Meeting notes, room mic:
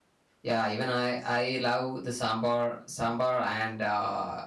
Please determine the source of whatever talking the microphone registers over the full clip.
user only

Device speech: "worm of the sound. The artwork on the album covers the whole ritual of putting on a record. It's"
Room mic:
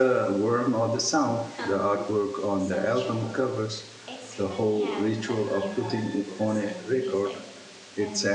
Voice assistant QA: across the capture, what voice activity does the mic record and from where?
both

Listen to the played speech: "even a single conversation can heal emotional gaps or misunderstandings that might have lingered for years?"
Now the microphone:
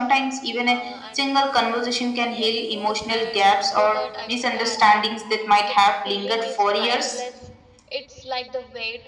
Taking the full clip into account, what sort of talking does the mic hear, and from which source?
both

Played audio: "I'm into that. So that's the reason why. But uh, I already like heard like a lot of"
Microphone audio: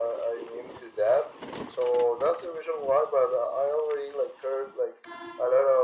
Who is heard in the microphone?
echo only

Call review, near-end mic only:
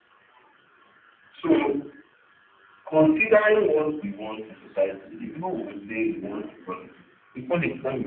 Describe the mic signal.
echo only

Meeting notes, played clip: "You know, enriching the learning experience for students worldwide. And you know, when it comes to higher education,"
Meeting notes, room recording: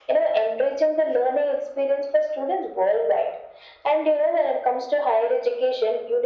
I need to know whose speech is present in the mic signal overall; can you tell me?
echo only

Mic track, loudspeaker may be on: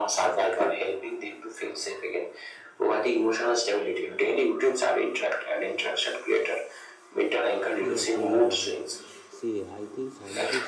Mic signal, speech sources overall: both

